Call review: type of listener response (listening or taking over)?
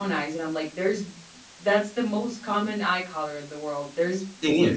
listening